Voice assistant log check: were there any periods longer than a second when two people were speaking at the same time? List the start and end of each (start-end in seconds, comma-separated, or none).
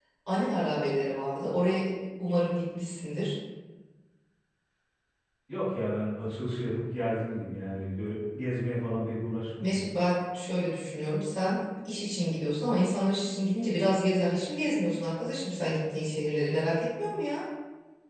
none